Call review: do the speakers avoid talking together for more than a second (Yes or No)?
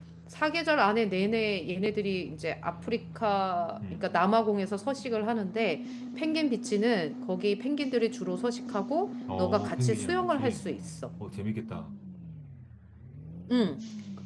No